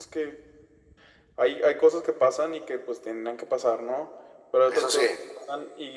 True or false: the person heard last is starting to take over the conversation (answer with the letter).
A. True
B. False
B